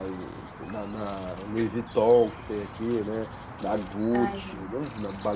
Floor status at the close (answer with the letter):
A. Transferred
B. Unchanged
B